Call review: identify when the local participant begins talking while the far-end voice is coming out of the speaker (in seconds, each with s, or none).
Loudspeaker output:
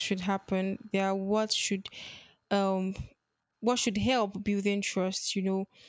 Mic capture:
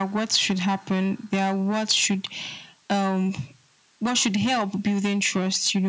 none